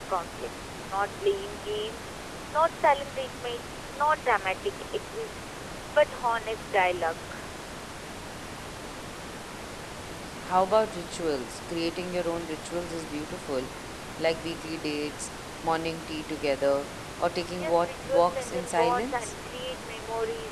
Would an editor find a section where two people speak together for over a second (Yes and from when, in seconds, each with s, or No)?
Yes, from 17.5 s